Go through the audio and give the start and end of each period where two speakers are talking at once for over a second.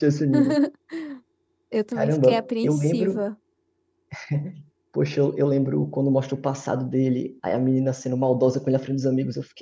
1.9-3.2

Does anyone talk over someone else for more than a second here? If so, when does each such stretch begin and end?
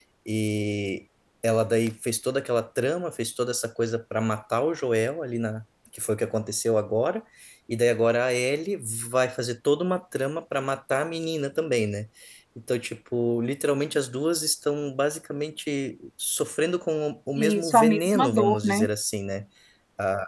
17.4-18.9

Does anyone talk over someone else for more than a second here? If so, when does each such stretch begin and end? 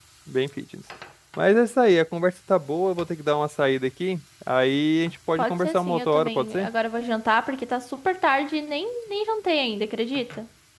5.4-6.7

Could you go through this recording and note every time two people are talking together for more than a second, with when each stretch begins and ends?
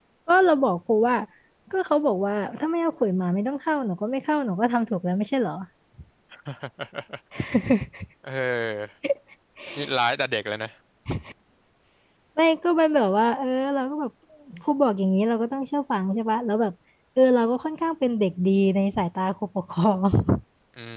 none

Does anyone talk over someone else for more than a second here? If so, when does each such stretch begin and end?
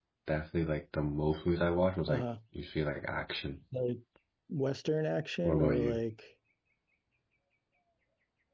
none

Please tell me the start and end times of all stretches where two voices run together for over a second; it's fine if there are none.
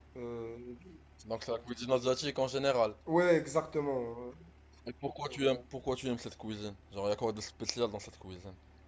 none

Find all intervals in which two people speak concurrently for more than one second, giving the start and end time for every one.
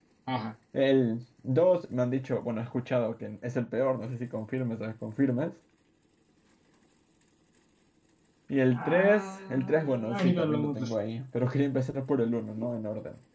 8.7-10.9

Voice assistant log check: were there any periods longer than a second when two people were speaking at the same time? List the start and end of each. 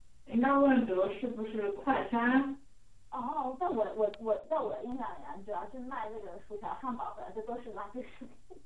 none

